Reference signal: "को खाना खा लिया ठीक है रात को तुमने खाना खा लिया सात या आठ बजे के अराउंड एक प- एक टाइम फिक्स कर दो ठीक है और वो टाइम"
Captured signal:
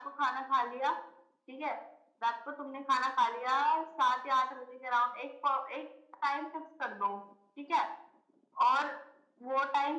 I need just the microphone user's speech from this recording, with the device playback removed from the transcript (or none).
none